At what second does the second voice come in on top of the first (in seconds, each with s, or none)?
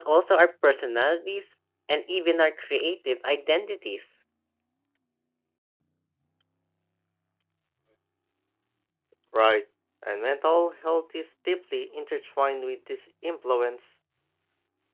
none